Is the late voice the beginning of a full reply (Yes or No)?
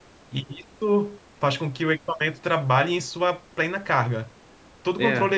No